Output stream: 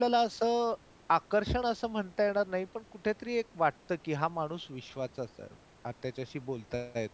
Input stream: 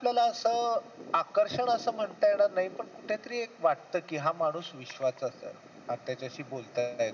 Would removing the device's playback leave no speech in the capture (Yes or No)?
Yes